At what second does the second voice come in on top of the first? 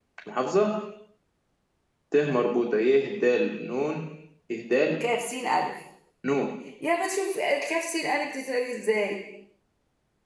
none

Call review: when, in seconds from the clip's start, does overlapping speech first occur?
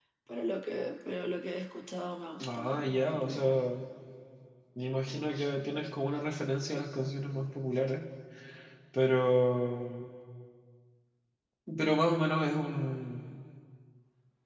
2.4 s

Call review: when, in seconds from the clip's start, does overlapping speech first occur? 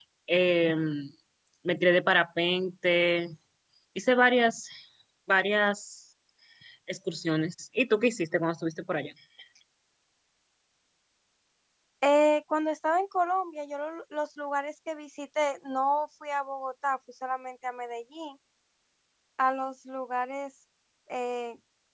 none

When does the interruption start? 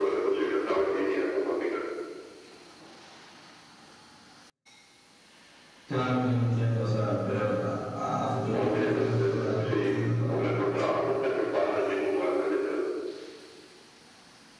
8.5 s

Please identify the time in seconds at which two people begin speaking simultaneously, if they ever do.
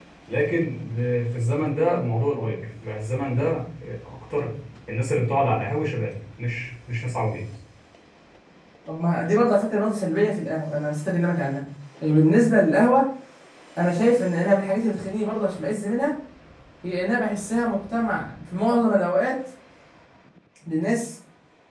none

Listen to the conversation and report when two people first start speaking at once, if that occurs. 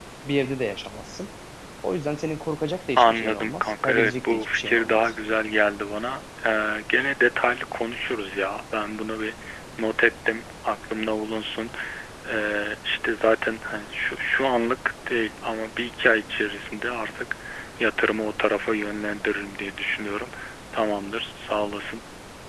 3.0 s

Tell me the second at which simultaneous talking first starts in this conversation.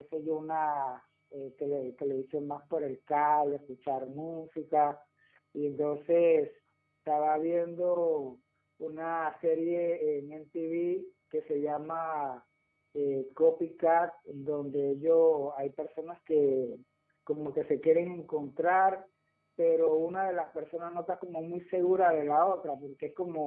none

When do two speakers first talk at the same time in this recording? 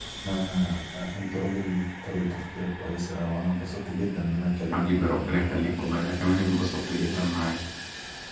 4.7 s

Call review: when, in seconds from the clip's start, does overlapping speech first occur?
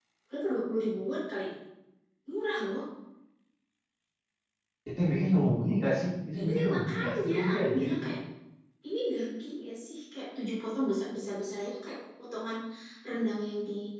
6.4 s

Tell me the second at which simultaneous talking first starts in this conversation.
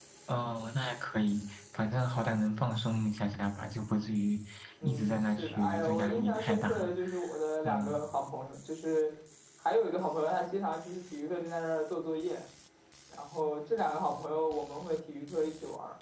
4.8 s

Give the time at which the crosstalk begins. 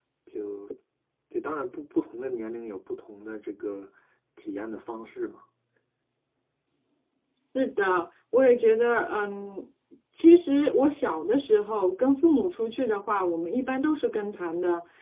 none

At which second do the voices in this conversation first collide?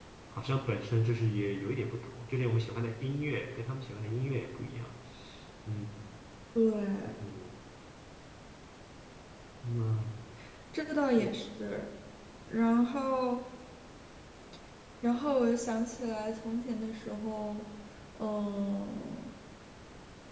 none

